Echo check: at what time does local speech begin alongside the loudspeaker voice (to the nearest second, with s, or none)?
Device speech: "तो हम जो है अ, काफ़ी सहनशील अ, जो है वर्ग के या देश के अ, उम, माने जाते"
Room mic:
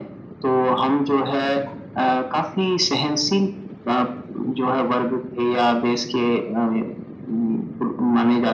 none